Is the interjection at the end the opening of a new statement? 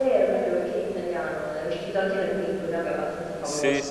Yes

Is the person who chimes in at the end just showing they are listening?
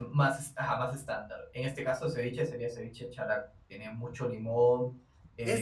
No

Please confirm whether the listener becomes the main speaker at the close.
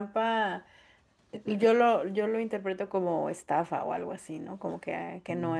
Yes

